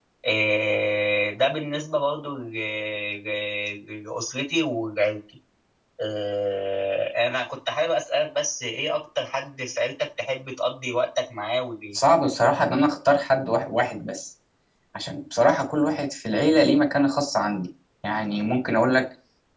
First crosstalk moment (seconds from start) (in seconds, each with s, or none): none